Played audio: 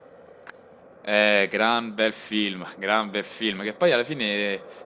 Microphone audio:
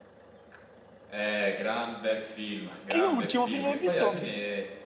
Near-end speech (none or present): present